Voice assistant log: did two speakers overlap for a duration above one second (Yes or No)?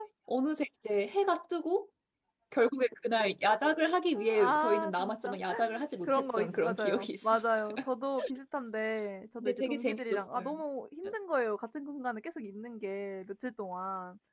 Yes